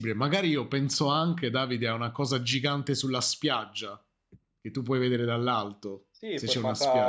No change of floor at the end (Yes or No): No